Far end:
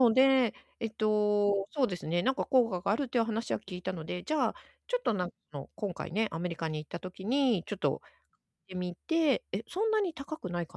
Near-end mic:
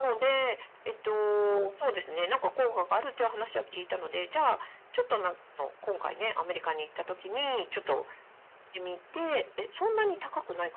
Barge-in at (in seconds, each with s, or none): none